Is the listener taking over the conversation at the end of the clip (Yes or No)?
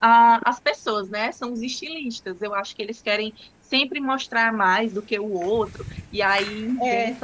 Yes